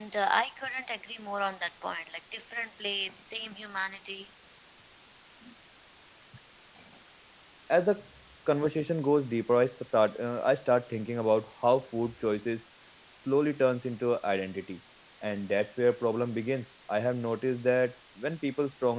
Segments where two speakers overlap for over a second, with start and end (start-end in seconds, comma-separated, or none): none